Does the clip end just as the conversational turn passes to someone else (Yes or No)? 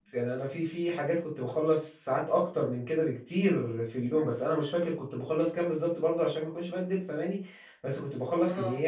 No